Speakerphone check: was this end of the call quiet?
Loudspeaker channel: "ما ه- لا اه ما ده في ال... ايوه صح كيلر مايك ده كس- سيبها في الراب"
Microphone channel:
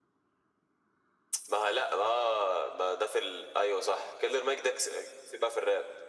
Yes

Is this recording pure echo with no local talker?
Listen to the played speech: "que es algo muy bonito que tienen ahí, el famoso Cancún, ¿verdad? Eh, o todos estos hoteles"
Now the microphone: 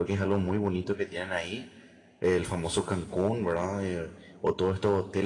Yes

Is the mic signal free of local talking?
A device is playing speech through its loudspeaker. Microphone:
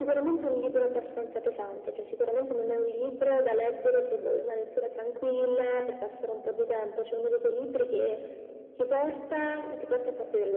Yes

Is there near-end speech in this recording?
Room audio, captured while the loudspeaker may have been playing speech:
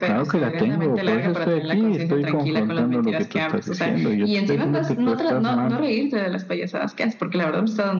No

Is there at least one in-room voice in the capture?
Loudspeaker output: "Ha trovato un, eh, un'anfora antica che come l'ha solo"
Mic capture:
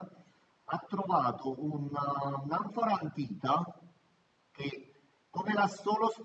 No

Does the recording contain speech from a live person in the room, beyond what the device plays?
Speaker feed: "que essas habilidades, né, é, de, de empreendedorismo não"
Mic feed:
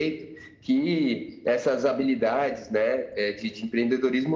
No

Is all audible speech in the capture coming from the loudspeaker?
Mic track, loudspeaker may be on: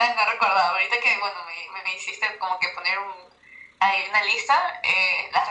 Yes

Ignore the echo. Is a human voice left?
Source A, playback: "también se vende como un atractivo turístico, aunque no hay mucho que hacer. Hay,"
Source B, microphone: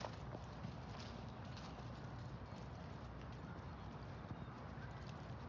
No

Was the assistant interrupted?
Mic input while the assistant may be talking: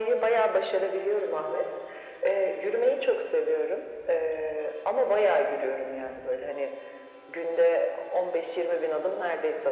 No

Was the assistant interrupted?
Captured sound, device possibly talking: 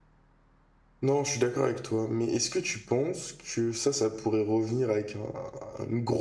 Yes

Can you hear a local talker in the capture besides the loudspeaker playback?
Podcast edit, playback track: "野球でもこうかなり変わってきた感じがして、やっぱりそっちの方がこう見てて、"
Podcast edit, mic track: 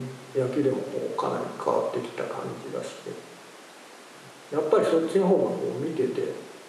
No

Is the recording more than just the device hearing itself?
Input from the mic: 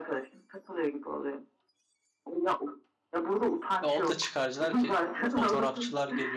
Yes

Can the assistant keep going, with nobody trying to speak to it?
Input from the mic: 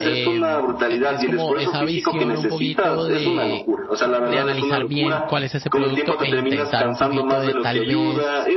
No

